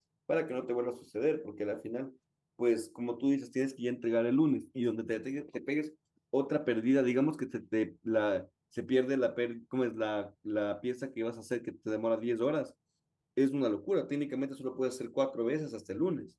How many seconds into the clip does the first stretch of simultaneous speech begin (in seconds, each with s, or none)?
none